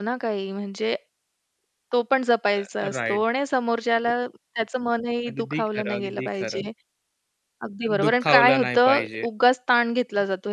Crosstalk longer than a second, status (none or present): present